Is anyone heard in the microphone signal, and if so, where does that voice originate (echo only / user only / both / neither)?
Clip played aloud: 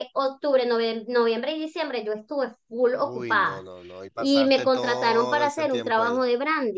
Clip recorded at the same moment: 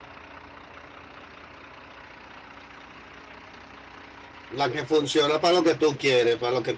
user only